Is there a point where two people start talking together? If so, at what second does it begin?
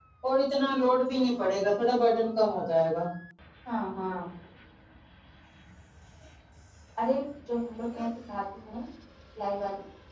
none

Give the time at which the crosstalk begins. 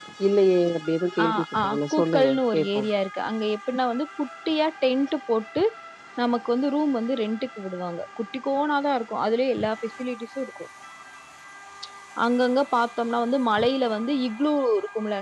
1.2 s

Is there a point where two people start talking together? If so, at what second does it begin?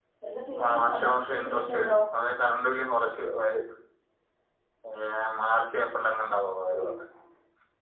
0.7 s

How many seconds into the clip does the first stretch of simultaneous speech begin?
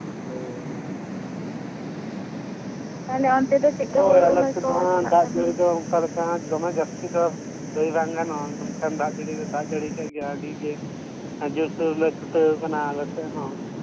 3.9 s

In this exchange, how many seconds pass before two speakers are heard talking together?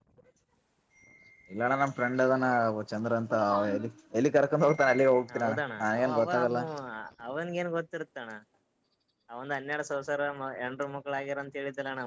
5.3 s

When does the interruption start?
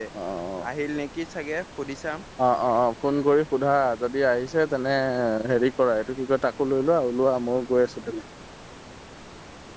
none

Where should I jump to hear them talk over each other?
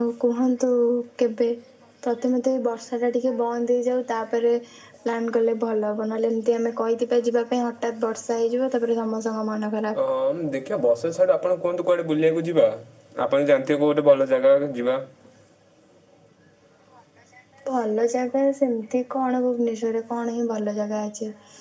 none

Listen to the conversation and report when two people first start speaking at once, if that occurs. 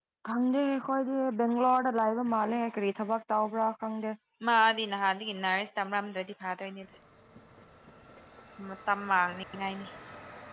none

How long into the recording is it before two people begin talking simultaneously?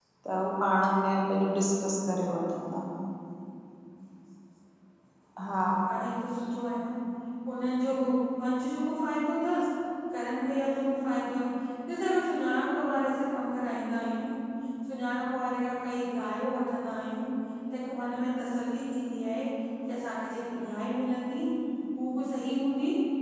none

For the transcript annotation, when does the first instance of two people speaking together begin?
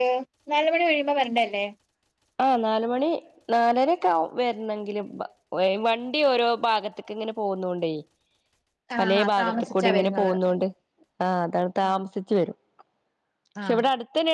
9.0 s

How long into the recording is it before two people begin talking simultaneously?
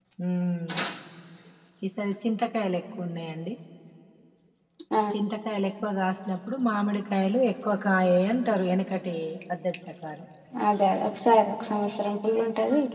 none

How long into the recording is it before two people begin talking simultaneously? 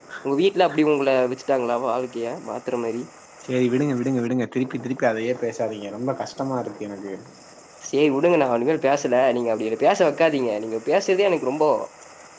none

